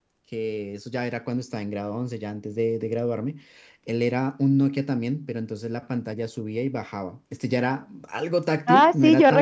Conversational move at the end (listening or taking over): taking over